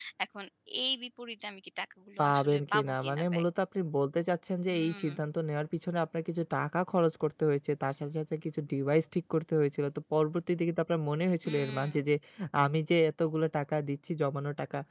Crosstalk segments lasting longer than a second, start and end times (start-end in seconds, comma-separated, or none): 2.2-3.4